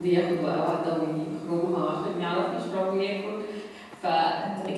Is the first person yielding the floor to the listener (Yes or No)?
No